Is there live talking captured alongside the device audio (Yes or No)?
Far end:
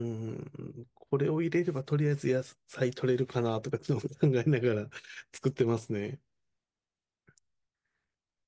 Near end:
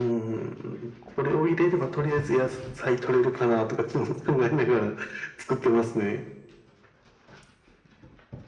No